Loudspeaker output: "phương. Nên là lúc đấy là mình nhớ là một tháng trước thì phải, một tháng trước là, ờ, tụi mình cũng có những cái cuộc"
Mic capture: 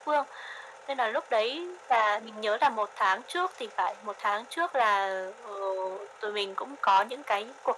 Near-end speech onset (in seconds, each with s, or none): none